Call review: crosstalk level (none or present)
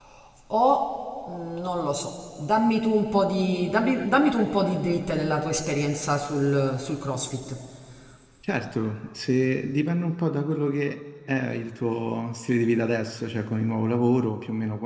none